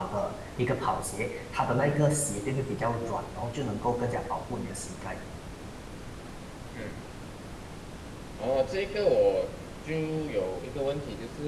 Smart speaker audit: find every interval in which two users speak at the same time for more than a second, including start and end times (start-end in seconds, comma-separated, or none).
none